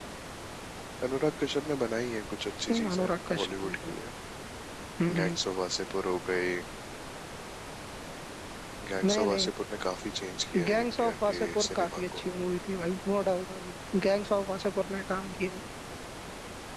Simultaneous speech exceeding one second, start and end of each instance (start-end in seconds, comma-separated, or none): 2.7-3.9, 10.7-12.2